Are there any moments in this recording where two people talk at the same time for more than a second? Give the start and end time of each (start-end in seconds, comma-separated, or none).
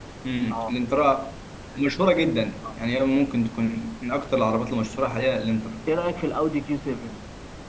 none